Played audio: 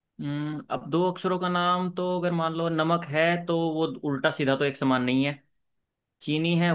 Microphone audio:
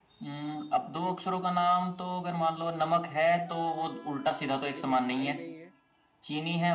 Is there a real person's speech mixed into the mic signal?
Yes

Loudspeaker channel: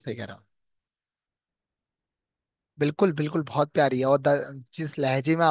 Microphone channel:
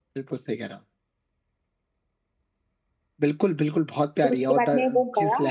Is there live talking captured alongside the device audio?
Yes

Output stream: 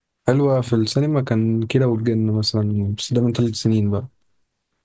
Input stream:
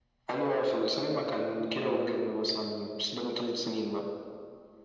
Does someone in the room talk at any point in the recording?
No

